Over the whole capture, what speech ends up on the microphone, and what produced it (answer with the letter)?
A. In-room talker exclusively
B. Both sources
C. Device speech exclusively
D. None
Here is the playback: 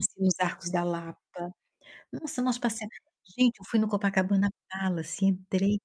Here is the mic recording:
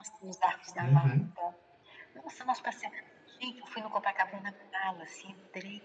B